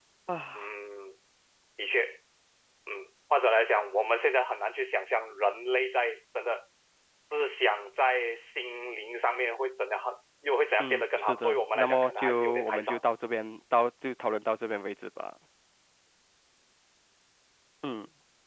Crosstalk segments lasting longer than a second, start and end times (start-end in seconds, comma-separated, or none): 10.8-13.0